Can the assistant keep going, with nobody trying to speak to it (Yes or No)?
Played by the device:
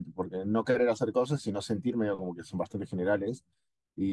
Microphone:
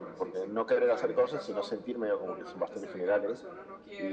No